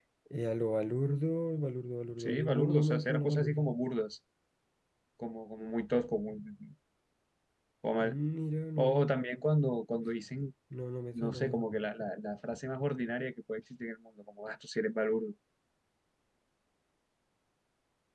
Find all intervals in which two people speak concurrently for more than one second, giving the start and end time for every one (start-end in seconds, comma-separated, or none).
2.2-3.7